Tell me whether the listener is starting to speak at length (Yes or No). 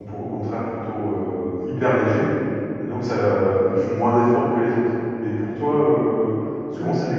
No